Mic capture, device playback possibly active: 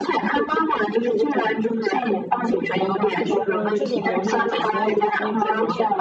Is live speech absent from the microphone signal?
No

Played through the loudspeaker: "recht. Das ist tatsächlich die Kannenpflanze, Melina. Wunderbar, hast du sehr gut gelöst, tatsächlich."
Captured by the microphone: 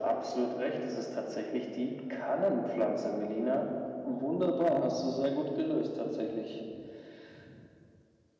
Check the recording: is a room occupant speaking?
No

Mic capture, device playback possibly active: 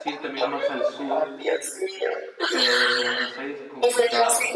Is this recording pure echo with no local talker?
No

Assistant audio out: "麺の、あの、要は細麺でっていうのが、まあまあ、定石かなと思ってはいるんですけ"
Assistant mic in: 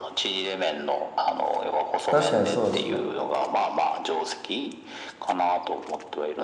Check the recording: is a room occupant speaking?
Yes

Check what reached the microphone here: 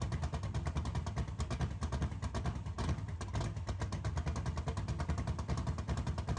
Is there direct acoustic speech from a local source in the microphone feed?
No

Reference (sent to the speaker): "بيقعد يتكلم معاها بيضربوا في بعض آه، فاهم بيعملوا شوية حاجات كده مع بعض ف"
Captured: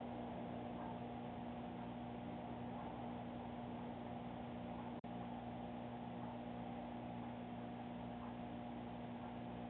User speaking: No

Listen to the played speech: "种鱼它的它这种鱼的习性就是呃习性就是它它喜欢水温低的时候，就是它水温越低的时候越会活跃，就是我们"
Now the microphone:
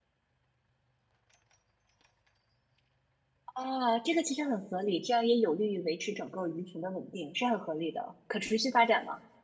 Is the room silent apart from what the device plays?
No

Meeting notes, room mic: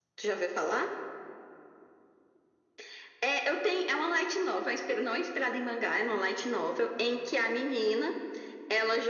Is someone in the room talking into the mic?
No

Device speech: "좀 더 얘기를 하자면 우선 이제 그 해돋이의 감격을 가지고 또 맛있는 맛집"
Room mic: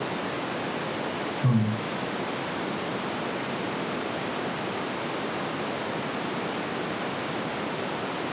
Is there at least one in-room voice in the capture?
Yes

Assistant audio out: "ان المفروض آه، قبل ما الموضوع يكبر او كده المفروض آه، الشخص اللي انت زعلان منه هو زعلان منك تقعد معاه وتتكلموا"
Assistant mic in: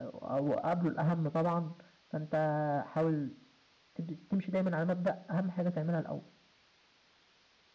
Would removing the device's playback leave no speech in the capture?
No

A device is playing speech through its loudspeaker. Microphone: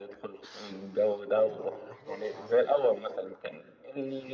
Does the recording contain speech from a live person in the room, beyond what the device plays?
Yes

